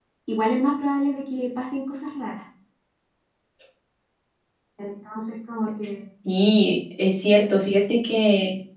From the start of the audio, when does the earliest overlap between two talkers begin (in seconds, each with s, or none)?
none